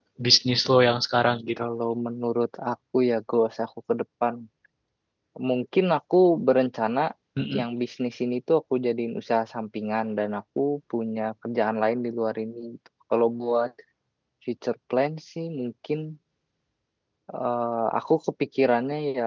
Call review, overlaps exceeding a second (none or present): none